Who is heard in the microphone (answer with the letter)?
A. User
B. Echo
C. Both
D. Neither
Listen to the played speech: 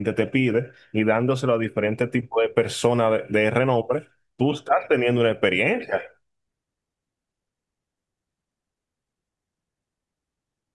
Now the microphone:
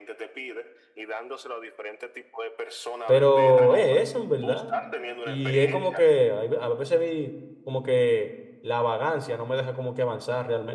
C